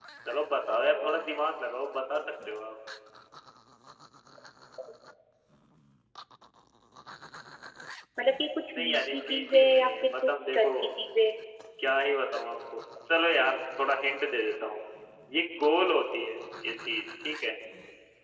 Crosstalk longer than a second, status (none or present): present